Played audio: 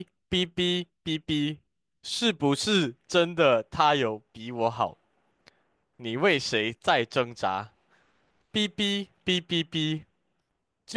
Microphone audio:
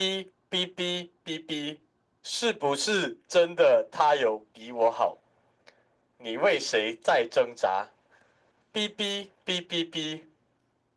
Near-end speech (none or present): none